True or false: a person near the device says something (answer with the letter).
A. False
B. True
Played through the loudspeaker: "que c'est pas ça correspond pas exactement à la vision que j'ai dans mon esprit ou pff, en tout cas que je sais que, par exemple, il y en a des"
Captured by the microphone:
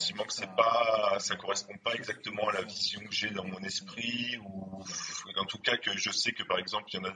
B